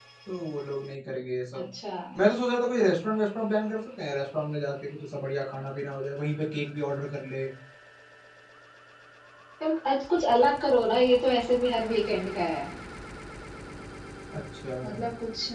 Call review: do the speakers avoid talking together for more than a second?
Yes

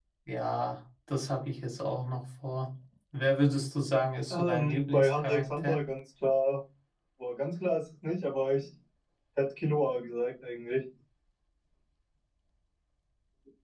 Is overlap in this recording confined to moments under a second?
No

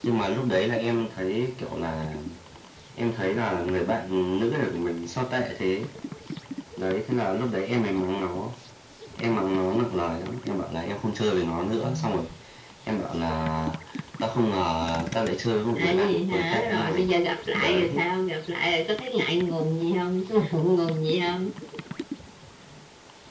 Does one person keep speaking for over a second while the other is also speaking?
Yes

